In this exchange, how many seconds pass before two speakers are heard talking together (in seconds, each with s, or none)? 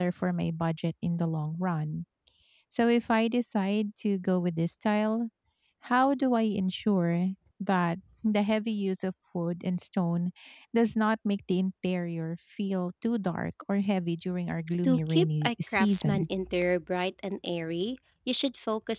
14.8 s